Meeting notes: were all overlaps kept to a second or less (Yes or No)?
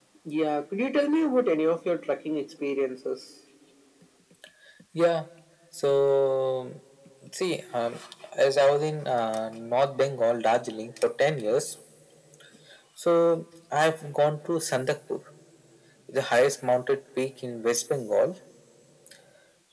Yes